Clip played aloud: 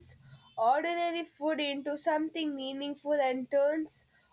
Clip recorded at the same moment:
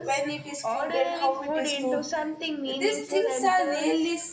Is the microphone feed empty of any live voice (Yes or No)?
No